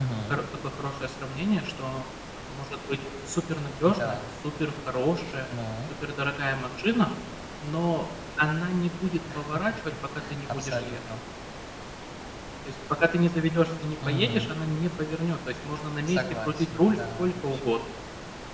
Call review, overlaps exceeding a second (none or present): present